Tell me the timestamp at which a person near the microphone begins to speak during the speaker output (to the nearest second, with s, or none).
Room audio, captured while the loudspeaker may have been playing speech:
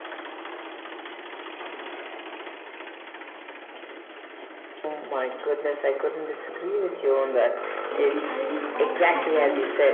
8 s